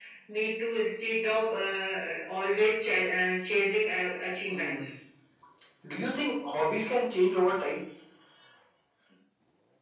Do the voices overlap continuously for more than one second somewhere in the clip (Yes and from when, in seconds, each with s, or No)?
No